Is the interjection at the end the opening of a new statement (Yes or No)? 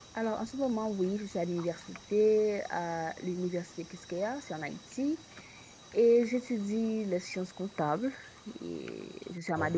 No